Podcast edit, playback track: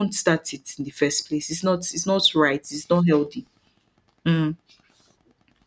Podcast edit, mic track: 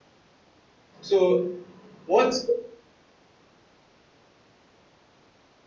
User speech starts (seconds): 1 s

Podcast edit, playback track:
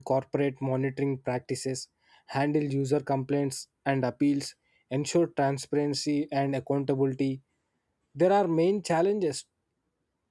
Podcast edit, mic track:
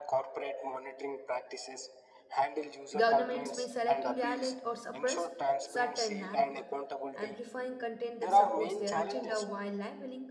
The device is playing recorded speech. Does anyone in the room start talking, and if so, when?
3 s

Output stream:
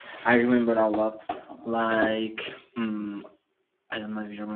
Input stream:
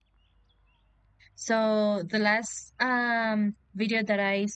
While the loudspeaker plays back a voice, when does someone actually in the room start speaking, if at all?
1 s

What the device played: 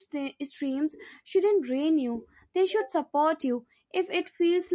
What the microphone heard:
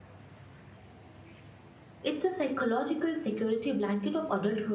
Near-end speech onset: 2 s

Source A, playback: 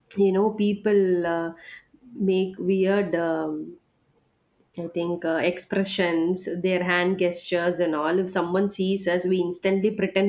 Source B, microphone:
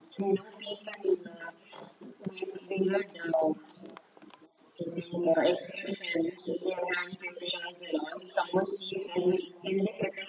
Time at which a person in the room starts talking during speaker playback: none

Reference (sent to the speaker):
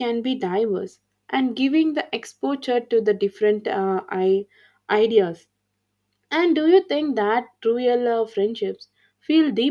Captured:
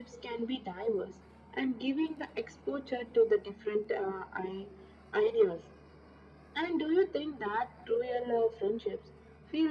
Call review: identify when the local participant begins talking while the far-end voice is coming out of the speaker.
none

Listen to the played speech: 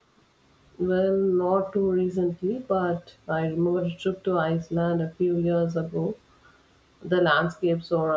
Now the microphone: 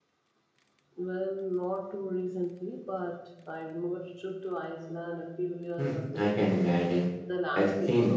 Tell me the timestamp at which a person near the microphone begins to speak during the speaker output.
6 s

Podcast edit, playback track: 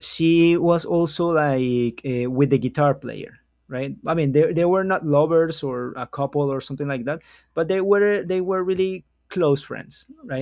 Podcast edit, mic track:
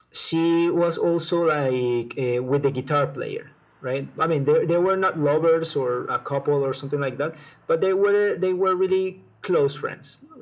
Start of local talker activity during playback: none

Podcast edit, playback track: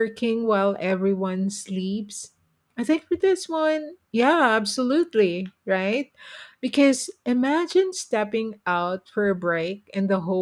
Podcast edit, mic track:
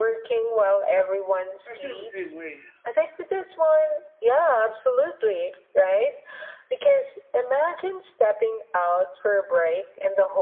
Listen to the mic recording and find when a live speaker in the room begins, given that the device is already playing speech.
2 s

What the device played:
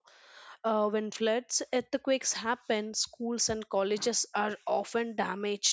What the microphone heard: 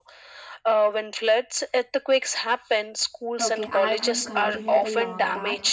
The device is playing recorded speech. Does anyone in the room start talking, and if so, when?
3 s

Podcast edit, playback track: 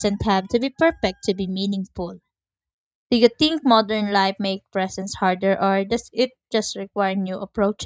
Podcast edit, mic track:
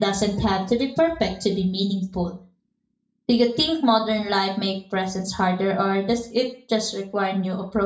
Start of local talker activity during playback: none

